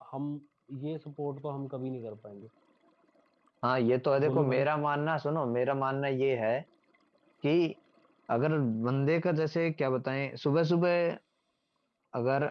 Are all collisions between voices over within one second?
Yes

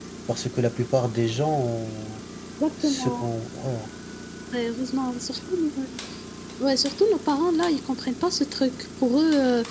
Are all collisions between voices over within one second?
Yes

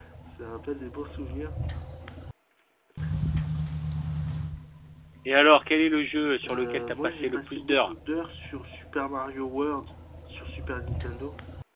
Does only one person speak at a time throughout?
No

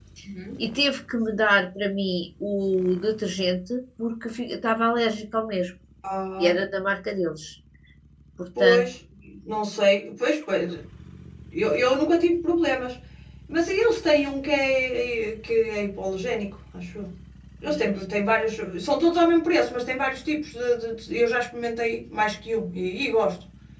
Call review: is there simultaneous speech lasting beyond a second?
No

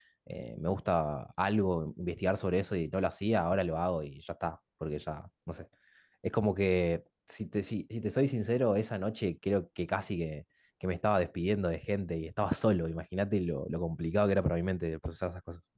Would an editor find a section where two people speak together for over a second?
No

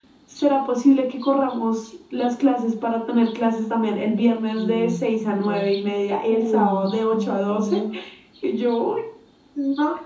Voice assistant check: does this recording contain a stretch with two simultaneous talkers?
Yes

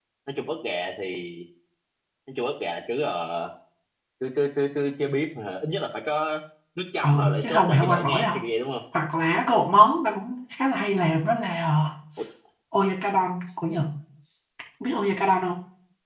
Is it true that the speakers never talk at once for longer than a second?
No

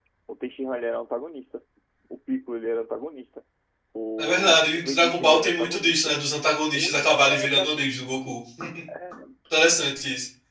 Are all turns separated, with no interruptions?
No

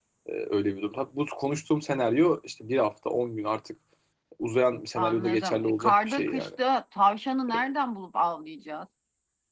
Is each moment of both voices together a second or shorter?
No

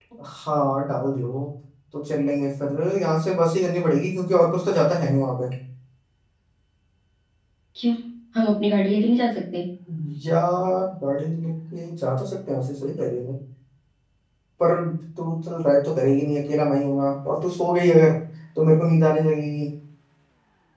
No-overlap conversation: Yes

